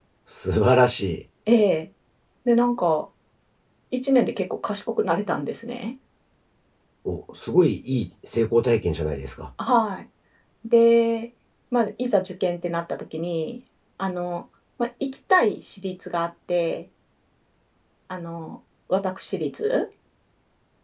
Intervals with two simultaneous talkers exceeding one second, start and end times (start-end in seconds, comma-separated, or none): none